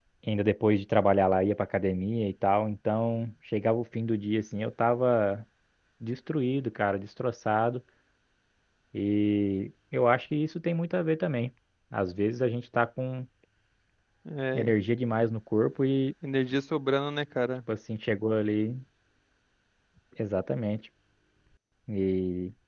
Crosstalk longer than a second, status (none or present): none